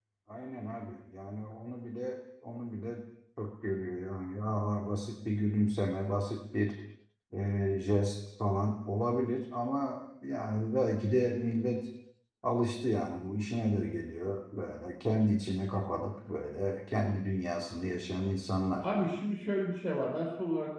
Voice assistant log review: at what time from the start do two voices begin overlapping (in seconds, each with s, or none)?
none